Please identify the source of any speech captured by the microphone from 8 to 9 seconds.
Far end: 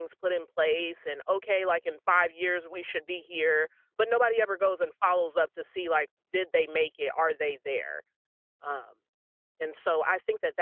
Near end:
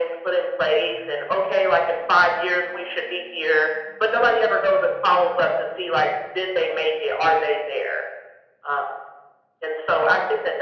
echo only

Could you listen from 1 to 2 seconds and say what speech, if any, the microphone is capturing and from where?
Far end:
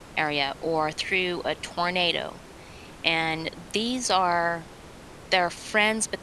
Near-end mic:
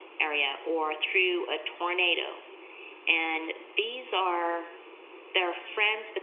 echo only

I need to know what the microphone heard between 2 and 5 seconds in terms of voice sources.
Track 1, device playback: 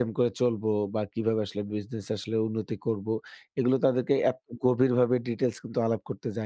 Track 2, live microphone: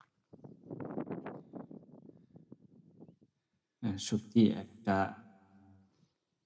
user only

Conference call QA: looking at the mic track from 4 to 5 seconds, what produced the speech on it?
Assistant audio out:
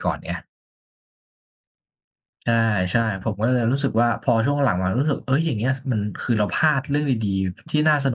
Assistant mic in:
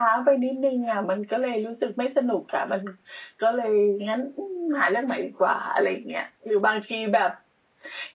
user only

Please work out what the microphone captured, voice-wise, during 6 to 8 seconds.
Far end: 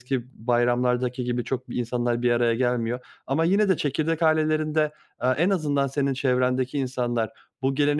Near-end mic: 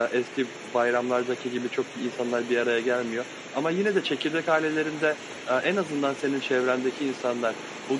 echo only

